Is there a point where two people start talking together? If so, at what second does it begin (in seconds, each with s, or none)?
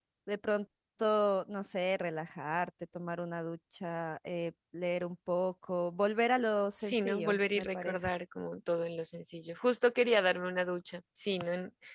6.8 s